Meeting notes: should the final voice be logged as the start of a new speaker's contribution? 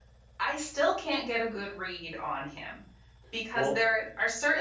No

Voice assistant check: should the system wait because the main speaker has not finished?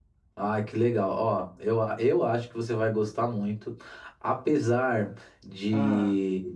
Yes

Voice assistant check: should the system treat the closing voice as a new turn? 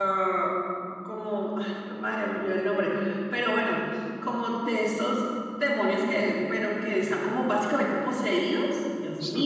No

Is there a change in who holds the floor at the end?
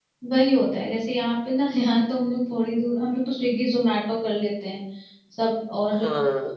No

